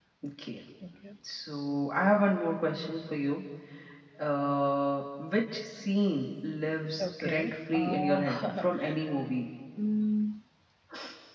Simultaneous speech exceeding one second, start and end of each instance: 7.0-8.6

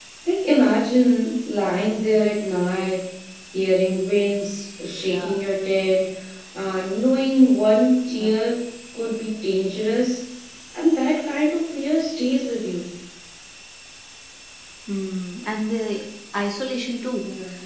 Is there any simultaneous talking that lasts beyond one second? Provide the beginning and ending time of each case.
none

